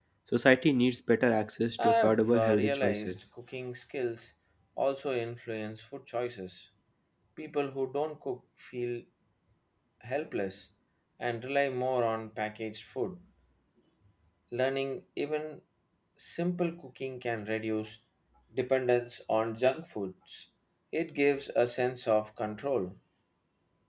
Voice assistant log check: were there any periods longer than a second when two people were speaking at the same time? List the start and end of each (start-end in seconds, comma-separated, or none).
1.8-3.1